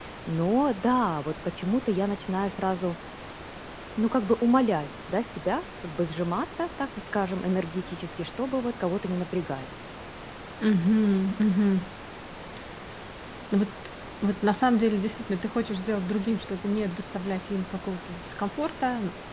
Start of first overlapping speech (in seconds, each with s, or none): none